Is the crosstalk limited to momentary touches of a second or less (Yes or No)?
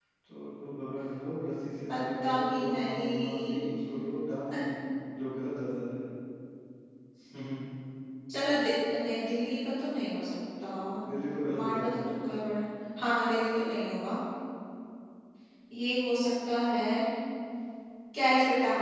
No